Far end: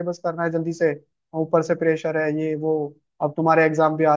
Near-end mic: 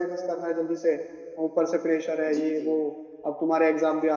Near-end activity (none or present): present